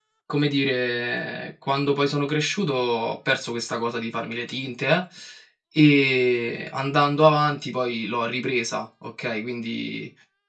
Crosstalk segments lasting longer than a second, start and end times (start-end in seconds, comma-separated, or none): none